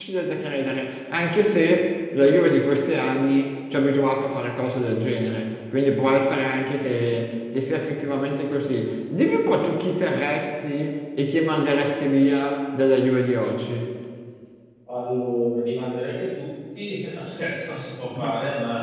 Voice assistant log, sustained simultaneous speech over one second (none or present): none